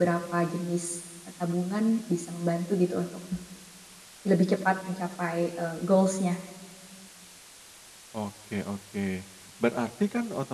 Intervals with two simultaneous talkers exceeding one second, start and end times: none

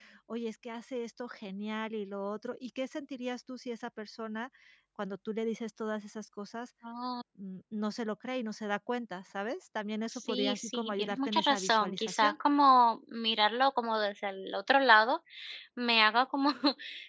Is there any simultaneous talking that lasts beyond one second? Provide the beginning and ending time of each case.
10.1-12.3

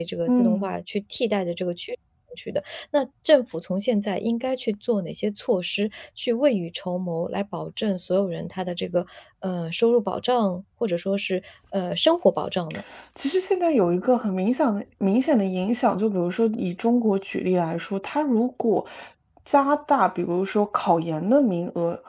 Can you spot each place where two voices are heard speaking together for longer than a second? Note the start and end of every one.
none

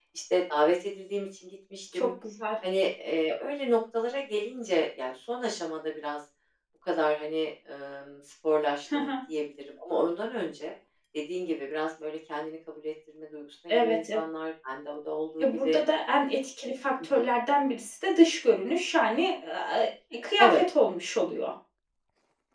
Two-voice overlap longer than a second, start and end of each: none

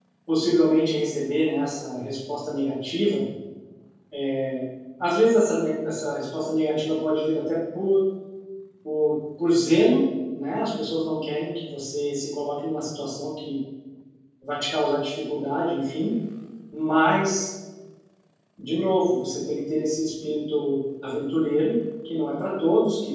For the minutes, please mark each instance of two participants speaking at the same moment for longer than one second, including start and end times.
none

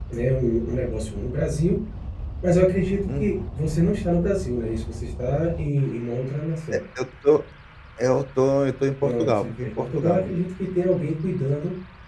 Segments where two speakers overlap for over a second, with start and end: 9.0-10.4

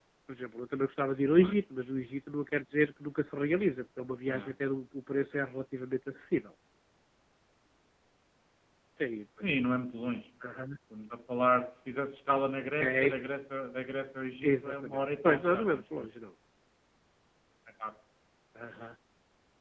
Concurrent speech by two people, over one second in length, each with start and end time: 14.4-16.1

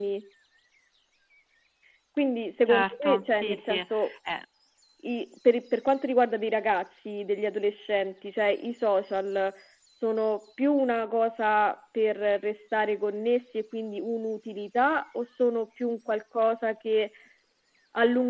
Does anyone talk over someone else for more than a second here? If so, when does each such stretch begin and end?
2.6-4.1

